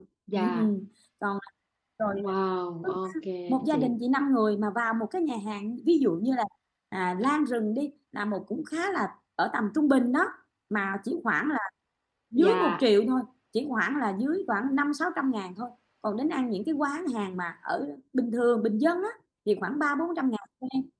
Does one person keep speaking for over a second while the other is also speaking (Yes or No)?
No